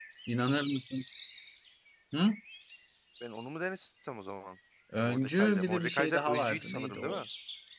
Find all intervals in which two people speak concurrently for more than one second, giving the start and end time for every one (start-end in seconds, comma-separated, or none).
5.0-7.2